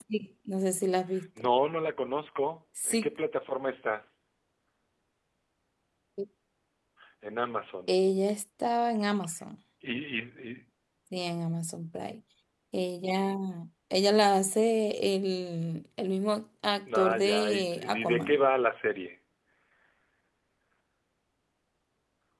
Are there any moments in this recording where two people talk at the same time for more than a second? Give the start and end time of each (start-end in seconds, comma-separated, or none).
17.0-18.4